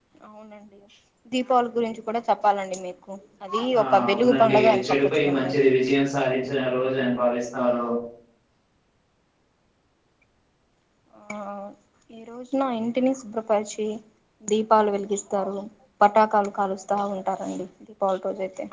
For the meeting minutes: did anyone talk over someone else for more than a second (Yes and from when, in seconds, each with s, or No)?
Yes, from 3.7 s